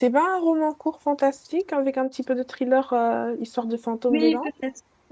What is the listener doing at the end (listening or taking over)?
taking over